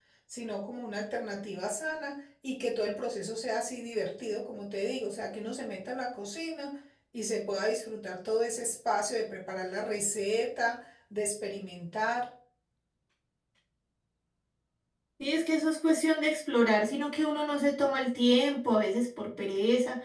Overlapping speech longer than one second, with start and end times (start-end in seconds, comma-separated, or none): none